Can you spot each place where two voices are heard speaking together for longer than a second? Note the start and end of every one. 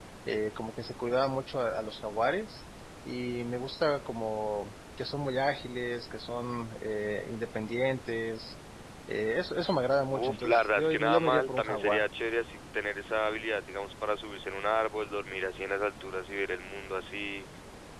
10.1-12.0

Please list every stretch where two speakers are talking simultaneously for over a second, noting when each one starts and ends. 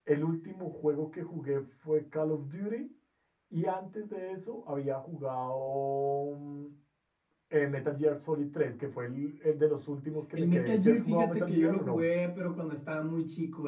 10.4-12.0

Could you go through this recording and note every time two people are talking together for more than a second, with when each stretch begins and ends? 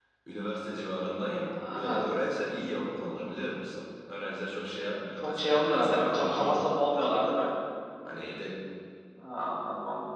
5.2-6.8

